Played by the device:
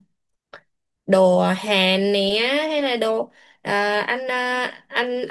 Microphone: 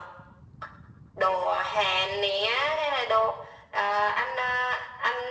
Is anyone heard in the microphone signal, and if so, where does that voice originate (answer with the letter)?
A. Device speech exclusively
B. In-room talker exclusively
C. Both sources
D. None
A